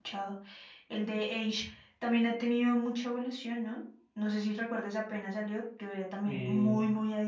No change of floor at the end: Yes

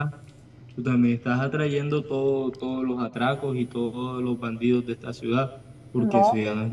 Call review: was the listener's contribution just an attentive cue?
Yes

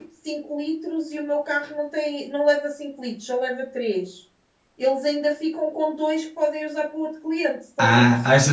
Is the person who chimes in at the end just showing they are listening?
No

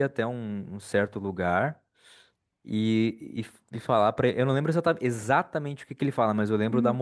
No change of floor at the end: Yes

